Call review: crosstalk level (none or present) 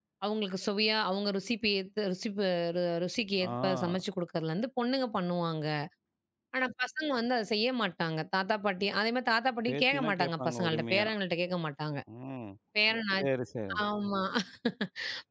present